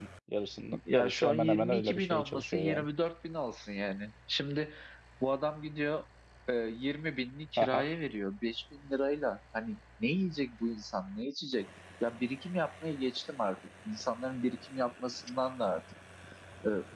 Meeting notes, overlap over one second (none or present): present